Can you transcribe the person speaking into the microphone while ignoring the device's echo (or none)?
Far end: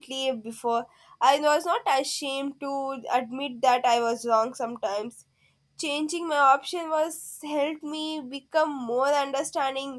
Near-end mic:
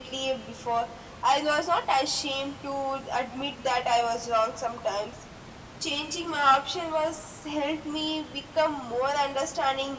none